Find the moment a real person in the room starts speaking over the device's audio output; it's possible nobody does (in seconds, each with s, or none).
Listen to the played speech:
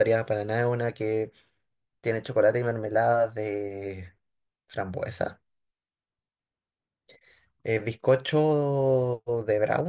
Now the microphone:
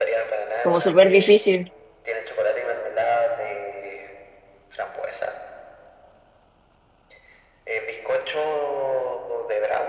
0.6 s